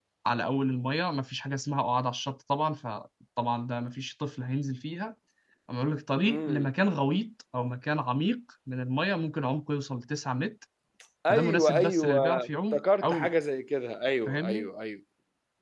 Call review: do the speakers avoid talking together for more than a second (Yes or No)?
No